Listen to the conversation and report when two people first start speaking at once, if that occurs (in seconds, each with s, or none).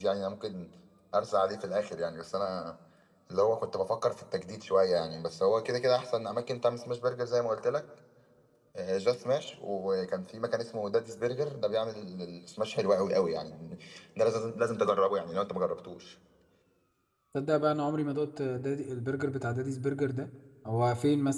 none